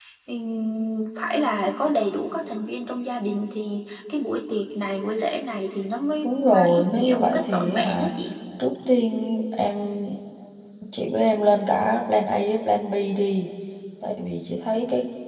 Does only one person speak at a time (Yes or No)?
No